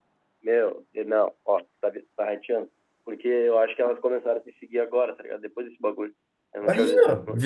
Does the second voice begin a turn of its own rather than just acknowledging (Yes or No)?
Yes